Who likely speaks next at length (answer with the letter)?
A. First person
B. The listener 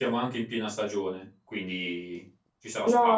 B